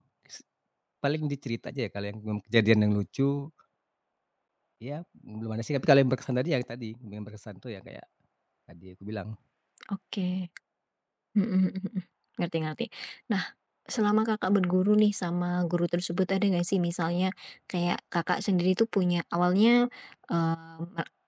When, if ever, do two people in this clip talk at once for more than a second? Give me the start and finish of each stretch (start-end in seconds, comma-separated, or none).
none